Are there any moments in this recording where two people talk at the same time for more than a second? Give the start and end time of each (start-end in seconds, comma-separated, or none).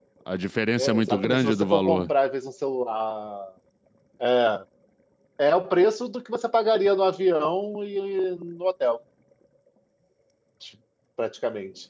0.8-2.1